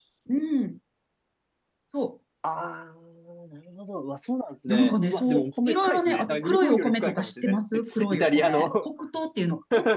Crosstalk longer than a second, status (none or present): present